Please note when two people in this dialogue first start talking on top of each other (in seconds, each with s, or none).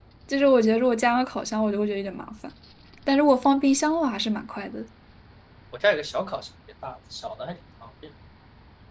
none